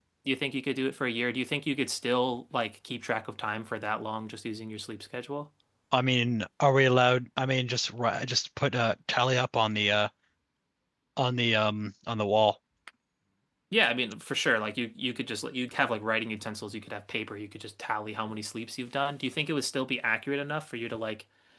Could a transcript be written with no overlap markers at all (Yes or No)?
Yes